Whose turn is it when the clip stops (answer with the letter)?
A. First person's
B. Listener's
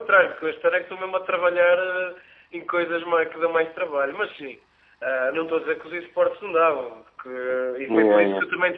A